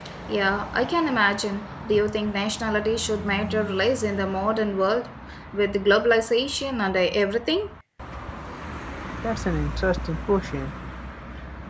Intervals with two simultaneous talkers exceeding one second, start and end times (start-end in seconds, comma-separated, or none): none